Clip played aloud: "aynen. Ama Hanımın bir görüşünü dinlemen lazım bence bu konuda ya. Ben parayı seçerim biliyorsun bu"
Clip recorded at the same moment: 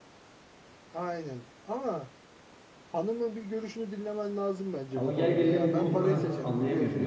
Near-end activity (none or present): present